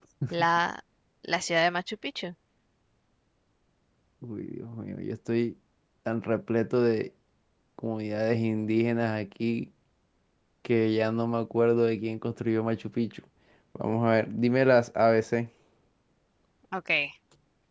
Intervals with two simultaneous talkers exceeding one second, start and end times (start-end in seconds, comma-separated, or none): none